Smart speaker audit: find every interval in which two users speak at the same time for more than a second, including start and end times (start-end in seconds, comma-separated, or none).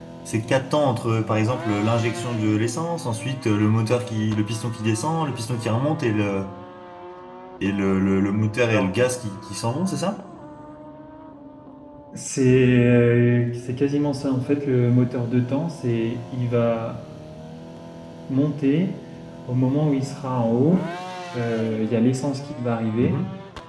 none